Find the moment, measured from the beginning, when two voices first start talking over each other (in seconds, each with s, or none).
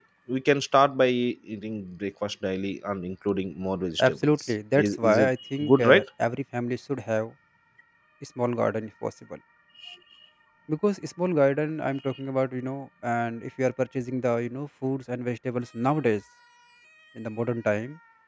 4.0 s